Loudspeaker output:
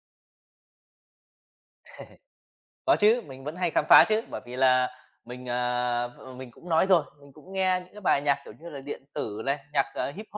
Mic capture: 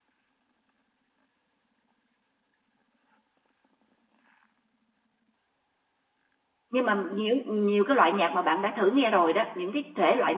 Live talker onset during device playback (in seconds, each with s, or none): 6.7 s